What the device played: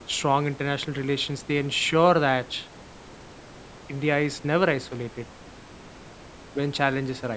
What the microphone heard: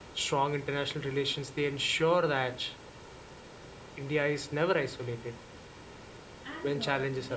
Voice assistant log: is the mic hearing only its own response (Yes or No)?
No